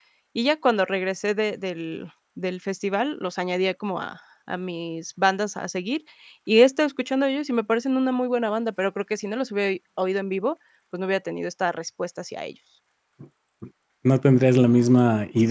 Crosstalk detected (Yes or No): No